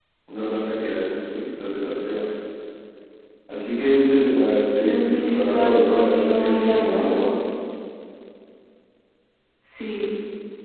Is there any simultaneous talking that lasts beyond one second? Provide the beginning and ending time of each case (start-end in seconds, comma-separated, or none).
4.8-7.1